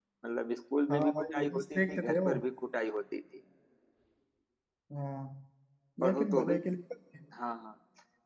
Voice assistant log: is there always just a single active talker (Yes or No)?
No